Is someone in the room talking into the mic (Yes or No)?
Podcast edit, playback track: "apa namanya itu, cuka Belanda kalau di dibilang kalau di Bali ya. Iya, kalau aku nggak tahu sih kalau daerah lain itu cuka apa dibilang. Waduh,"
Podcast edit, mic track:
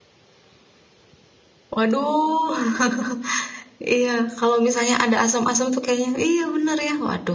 Yes